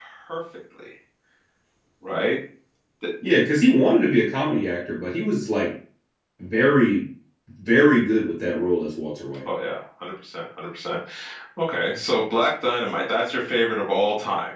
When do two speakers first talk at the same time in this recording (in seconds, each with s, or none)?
none